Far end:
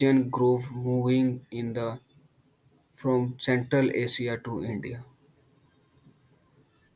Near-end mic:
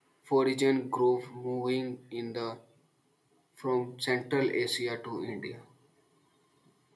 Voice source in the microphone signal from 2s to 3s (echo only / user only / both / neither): echo only